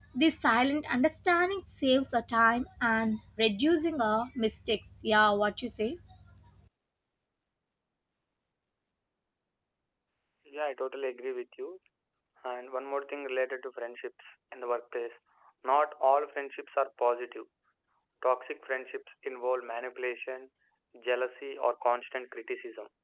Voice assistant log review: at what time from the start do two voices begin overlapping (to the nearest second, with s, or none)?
none